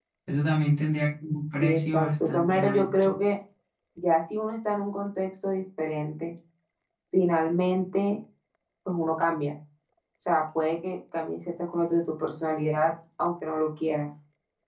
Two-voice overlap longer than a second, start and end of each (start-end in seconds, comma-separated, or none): 1.6-3.2